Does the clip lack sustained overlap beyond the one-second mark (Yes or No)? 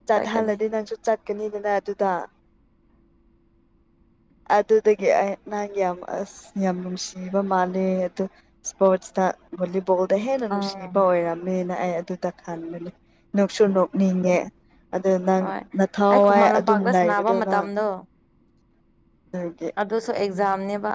No